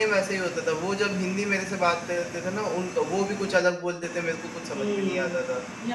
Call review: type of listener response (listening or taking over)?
taking over